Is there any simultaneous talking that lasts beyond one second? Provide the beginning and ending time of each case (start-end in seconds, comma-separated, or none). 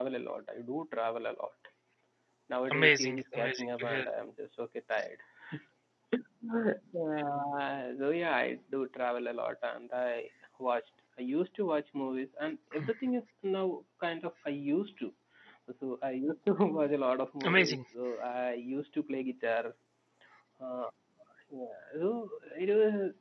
2.7-4.1